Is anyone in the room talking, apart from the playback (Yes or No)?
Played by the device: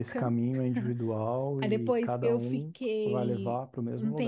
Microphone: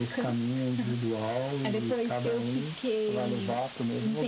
No